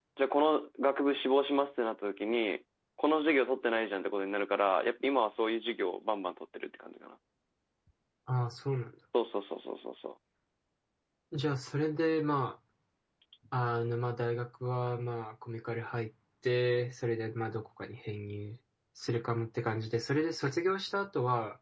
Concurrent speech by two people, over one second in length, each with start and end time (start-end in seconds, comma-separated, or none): none